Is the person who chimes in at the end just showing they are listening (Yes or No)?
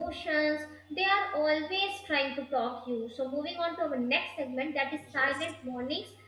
Yes